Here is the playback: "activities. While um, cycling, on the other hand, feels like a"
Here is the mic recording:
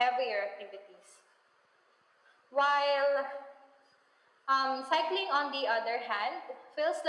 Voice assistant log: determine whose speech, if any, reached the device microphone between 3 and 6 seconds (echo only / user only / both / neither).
echo only